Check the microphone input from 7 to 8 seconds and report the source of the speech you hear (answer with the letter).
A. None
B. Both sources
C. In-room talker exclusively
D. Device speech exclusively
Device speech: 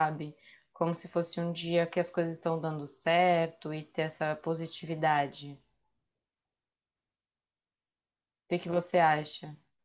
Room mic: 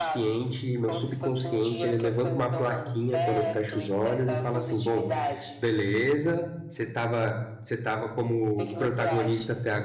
C